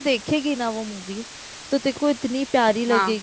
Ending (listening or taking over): listening